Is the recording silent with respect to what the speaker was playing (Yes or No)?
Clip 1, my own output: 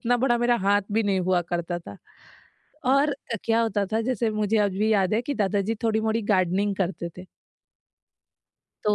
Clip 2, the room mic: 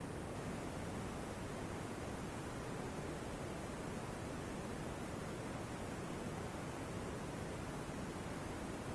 Yes